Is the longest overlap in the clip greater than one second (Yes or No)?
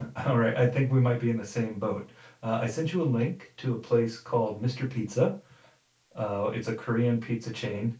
No